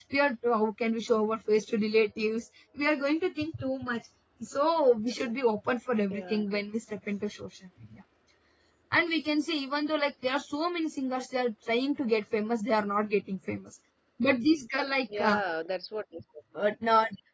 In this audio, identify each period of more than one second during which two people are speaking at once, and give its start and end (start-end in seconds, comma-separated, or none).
none